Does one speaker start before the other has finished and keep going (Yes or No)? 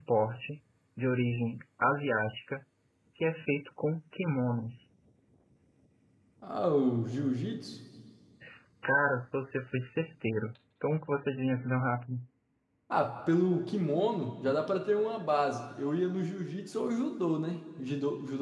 No